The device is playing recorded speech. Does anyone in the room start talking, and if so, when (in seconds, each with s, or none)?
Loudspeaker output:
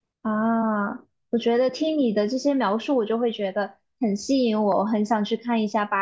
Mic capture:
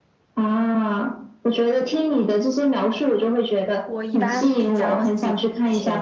3.8 s